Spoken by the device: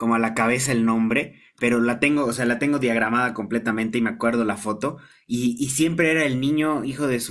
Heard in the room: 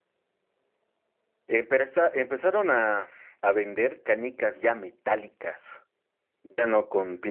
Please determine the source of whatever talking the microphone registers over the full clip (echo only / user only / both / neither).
user only